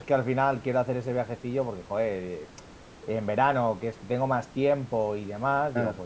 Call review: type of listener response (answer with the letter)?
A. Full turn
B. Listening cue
B